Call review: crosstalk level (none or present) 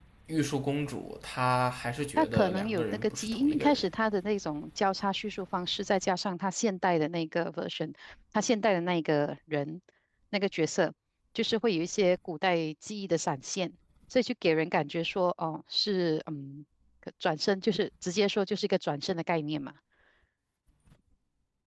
present